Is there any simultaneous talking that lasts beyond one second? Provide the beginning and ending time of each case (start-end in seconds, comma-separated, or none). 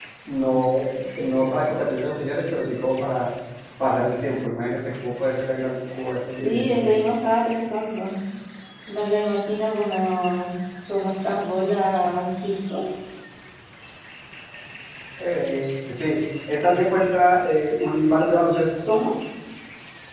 none